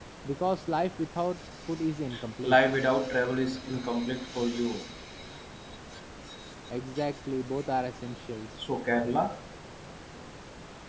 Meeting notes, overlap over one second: none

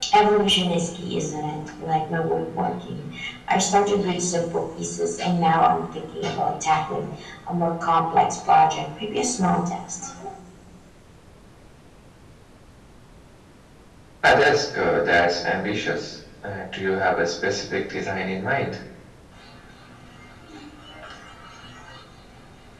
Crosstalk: none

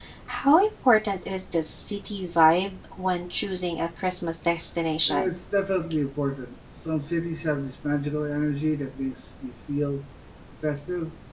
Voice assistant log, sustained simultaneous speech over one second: none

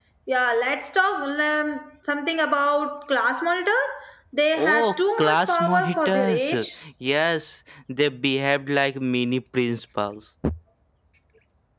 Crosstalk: present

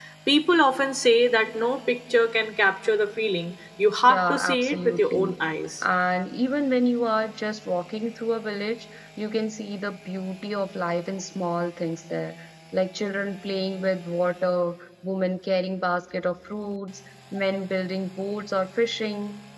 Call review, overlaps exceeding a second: present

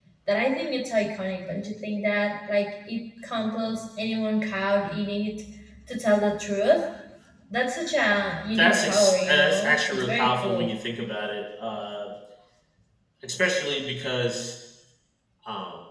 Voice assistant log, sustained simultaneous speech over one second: present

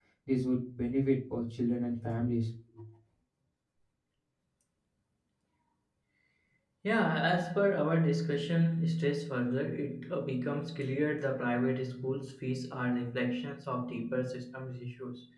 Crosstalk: none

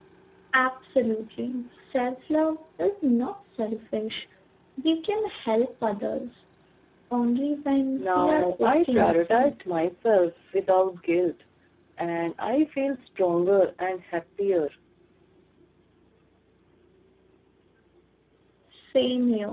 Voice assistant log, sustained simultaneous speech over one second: present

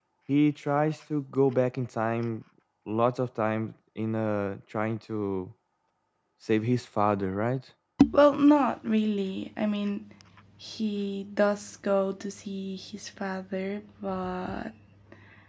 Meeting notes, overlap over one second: none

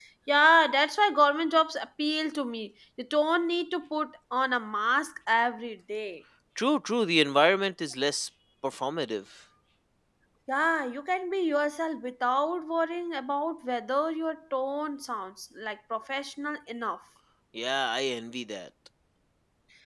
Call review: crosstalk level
none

